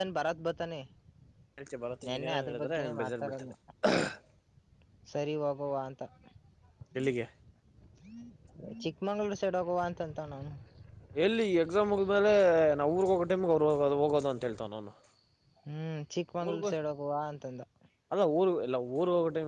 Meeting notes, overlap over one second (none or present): present